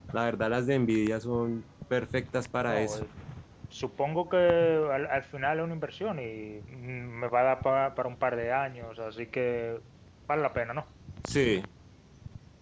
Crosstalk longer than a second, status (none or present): none